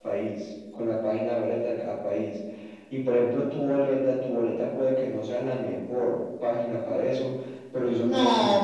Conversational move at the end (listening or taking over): taking over